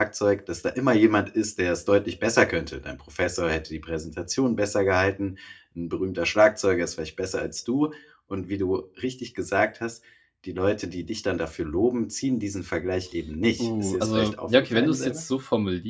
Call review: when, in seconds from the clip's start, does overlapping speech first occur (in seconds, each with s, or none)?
13.6 s